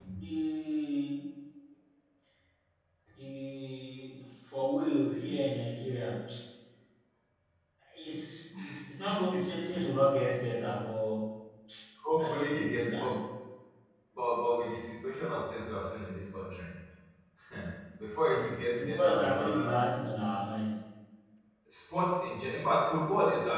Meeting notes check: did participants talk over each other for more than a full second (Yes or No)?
Yes